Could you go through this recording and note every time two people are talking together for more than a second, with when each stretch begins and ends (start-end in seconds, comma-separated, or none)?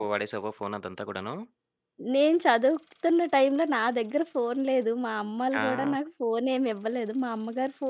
none